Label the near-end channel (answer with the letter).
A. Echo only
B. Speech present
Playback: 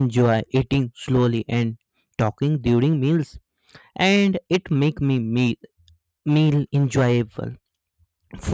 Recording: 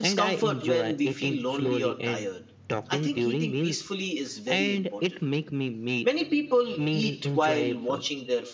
B